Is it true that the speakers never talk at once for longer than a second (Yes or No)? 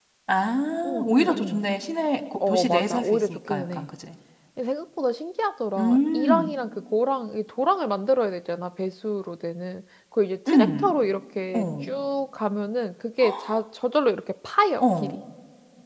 No